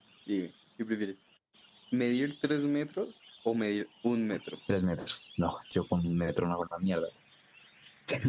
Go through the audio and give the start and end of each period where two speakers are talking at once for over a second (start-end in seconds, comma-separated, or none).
none